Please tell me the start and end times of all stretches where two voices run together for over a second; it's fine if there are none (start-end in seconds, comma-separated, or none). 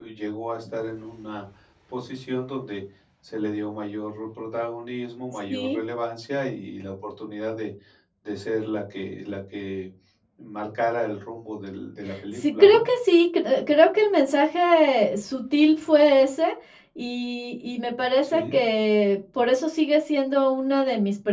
none